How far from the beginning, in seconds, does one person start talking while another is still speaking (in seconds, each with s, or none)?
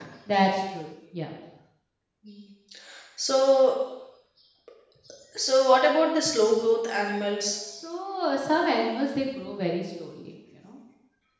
none